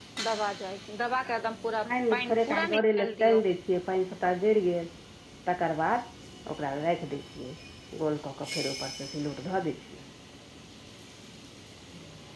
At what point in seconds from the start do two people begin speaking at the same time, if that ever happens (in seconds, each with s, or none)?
1.9 s